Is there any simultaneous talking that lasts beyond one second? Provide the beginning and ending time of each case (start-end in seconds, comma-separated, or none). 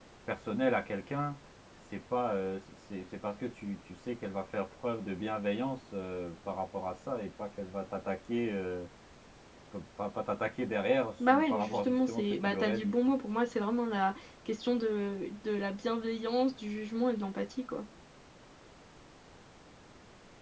11.3-12.9